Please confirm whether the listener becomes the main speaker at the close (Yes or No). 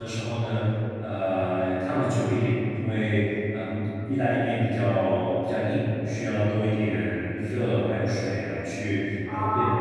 Yes